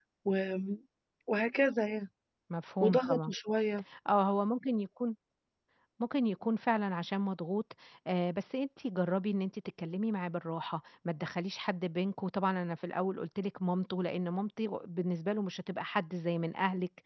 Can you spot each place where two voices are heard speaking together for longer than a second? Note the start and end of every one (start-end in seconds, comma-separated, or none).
none